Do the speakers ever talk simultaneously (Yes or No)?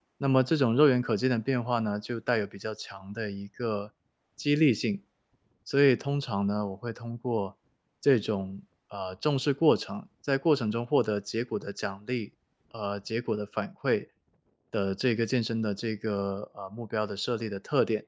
No